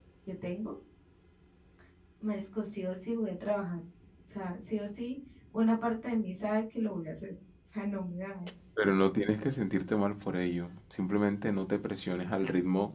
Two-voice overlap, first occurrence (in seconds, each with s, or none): none